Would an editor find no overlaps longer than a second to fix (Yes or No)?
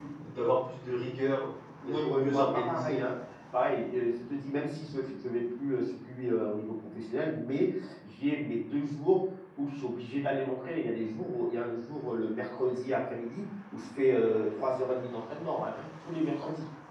No